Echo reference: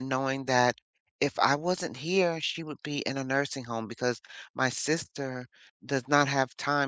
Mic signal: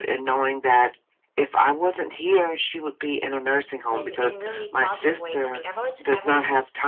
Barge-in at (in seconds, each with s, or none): 3.9 s